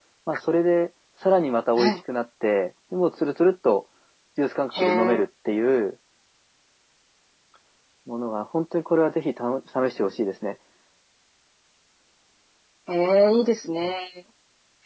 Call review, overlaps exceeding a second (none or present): none